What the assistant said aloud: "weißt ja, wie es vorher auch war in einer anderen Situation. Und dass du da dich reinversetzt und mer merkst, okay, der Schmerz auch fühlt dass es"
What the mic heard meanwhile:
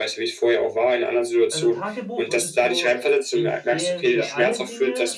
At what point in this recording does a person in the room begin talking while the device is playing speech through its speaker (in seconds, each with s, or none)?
1.5 s